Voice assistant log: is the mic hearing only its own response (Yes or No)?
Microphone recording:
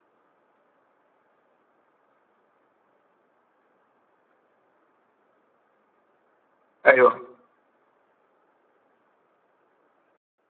No